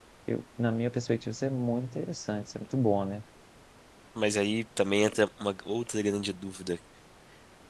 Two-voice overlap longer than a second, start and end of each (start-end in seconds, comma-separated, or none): none